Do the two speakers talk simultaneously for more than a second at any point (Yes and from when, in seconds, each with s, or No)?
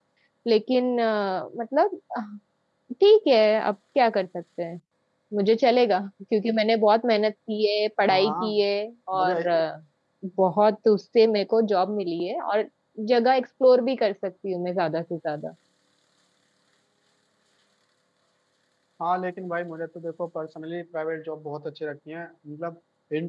No